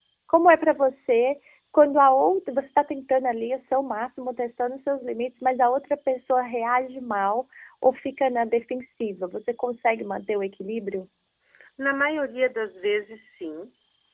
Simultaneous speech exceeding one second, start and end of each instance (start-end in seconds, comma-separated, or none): none